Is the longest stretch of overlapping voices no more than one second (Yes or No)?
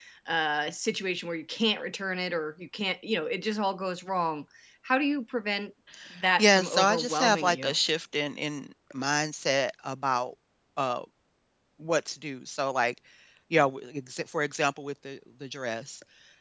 No